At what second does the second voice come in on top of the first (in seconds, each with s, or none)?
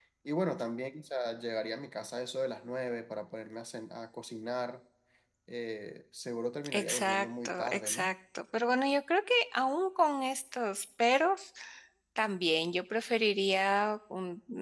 6.6 s